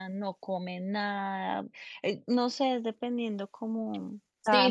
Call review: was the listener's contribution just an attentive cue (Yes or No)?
No